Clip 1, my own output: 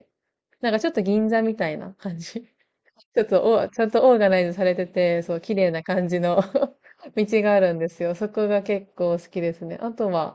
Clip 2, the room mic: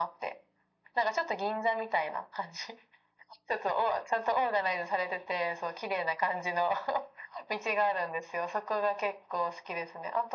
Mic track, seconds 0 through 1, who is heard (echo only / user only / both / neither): echo only